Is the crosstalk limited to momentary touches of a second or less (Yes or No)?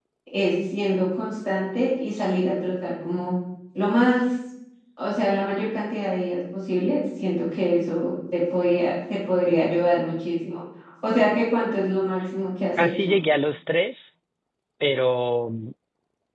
Yes